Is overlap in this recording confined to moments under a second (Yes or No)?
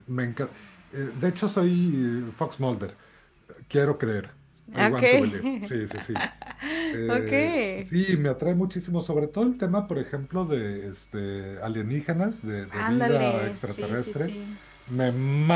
No